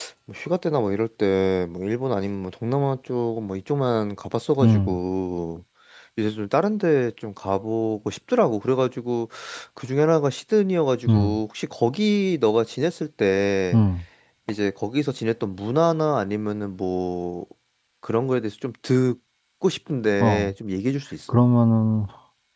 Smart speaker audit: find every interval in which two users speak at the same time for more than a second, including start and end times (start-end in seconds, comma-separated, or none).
none